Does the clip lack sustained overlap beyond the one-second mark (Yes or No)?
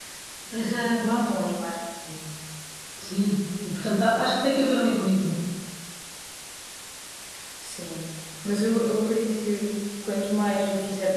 Yes